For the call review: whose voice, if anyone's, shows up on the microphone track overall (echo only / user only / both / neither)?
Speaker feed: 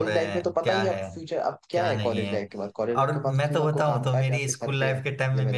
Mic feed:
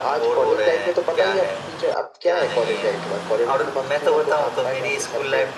echo only